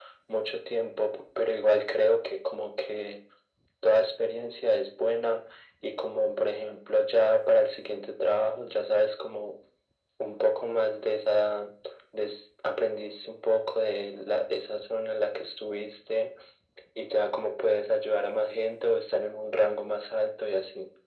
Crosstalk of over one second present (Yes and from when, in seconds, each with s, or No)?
No